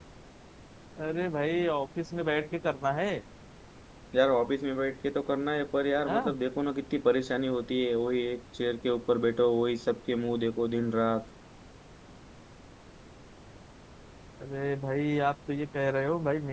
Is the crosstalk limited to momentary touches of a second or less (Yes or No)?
Yes